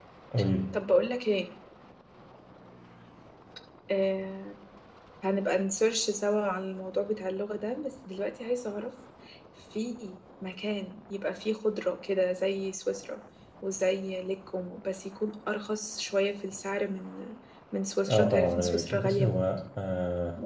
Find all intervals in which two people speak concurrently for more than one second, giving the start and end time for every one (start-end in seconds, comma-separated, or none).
18.1-19.4